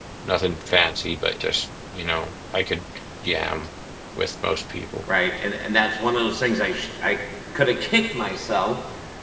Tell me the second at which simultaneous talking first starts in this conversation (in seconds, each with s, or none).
none